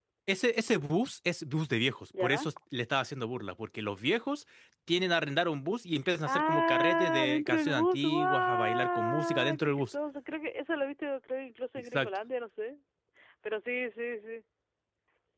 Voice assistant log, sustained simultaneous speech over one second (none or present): present